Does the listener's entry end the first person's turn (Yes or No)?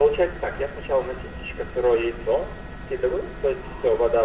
No